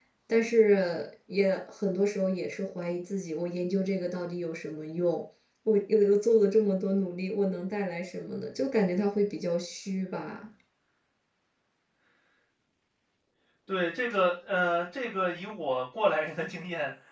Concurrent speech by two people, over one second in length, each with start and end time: none

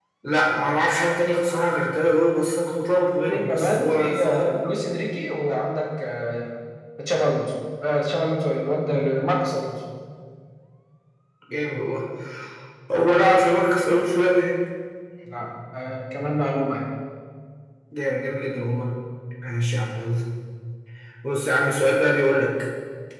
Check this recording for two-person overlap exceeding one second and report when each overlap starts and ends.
3.3-4.6

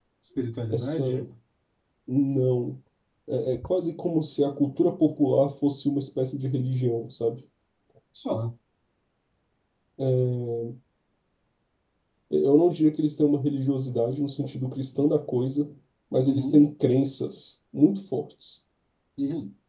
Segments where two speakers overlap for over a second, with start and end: none

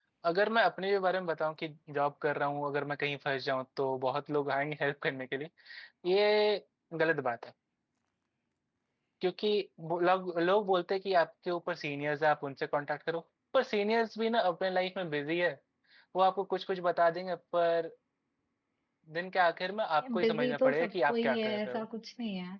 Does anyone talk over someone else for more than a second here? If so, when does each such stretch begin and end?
20.2-21.8

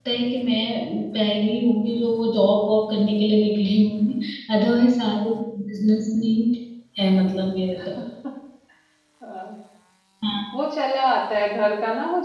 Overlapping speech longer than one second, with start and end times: none

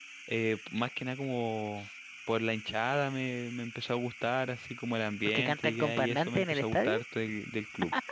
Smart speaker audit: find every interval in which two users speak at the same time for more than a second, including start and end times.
5.2-7.0

